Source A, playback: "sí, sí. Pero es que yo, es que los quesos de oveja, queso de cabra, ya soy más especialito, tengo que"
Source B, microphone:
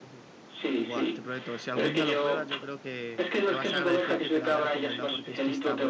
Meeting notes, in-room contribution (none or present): present